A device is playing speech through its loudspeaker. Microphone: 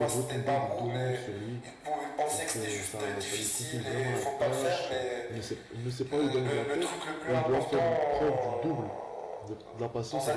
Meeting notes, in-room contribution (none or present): present